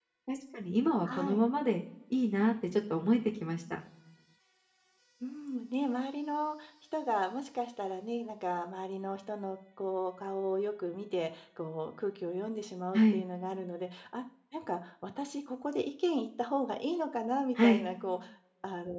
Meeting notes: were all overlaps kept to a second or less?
Yes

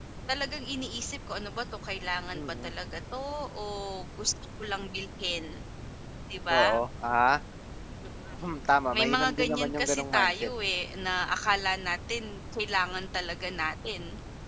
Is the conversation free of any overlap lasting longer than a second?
No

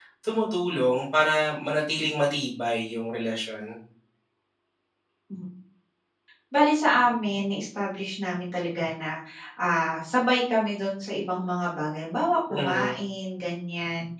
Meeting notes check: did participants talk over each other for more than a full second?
No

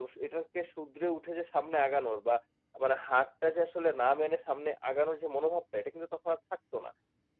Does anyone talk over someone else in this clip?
No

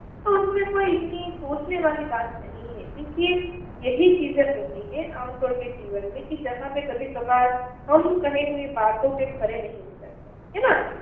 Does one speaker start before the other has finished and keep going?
No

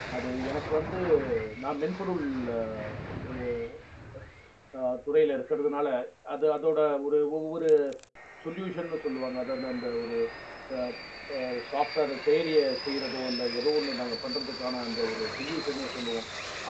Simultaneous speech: No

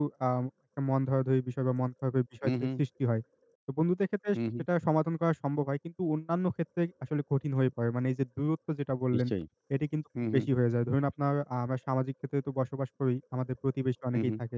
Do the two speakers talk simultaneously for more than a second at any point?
No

